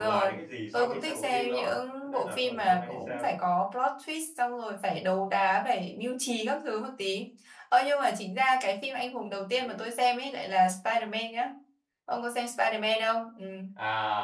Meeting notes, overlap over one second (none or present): present